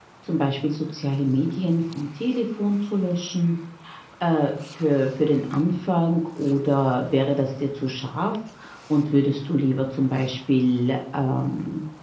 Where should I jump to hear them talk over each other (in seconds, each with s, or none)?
none